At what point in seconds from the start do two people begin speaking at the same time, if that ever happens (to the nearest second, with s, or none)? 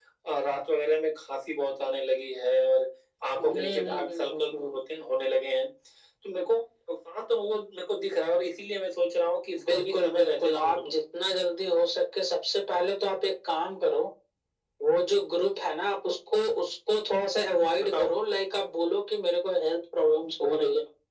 3 s